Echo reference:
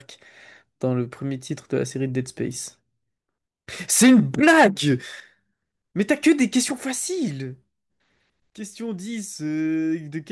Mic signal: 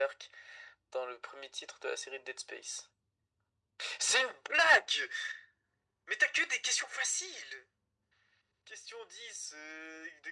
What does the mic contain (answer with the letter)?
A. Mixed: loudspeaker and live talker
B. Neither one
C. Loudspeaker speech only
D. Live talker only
C